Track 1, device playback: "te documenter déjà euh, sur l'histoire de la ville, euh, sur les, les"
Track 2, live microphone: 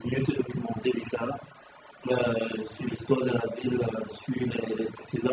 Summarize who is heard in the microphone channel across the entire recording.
echo only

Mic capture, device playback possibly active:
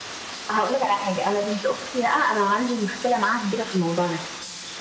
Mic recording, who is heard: echo only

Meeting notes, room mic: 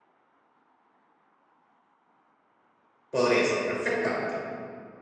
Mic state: user only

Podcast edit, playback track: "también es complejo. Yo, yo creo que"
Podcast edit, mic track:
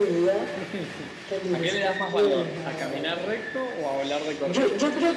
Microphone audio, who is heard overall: both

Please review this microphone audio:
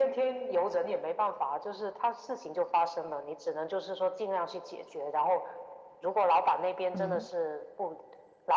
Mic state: both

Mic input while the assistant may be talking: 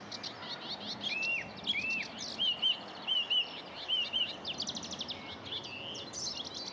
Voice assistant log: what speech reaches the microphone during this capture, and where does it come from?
neither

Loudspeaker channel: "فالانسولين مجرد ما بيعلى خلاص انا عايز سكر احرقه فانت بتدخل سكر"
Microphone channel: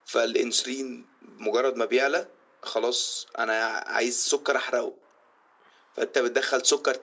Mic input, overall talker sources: echo only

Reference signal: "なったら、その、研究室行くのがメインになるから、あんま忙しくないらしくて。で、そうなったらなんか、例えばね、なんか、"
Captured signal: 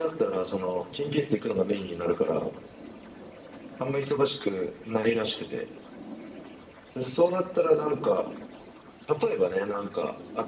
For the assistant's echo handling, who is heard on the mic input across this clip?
echo only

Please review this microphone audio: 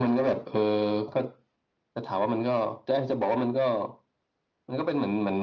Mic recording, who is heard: echo only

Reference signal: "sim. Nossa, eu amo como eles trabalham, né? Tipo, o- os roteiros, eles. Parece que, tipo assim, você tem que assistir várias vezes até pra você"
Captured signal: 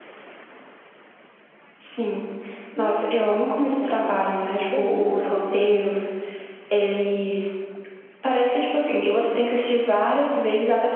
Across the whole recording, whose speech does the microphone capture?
both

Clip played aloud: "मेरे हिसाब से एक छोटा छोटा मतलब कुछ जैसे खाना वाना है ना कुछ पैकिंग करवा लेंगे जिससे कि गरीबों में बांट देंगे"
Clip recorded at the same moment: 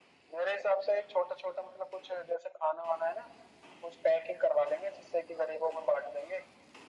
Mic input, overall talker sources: echo only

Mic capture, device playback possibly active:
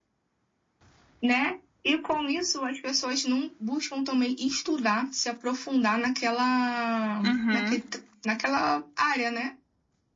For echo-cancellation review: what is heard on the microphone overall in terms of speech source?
both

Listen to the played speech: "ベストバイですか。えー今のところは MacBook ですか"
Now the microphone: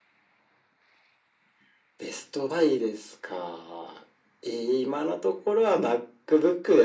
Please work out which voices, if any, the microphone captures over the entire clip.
echo only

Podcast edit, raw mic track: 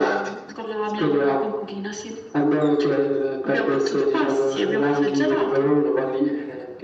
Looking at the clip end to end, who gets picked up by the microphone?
echo only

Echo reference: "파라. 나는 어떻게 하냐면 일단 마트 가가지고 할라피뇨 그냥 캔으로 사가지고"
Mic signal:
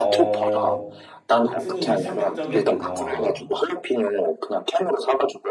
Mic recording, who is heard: both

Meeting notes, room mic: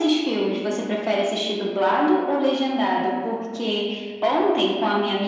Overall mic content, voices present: echo only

